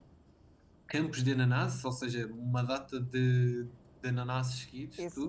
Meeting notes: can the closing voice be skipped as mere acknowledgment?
No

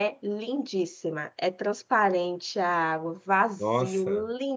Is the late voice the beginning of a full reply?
No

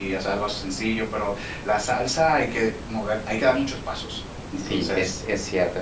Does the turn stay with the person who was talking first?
No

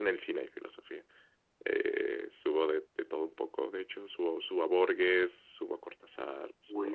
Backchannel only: No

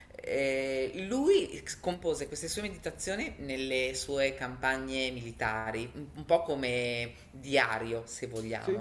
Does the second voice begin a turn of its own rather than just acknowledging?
No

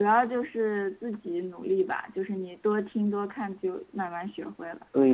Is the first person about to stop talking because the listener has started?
Yes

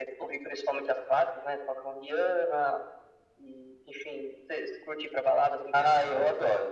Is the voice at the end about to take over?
Yes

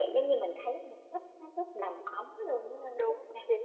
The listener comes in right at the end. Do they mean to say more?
Yes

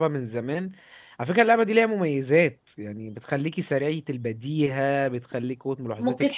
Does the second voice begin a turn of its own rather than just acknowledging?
Yes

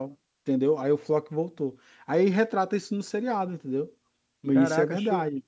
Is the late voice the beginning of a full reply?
Yes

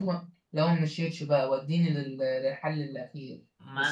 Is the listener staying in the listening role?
No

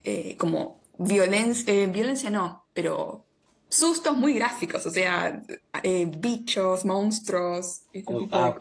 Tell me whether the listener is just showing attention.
No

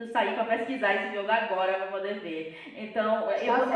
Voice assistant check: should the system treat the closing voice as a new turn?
Yes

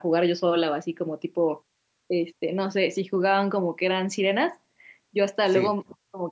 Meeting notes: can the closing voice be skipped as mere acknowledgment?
Yes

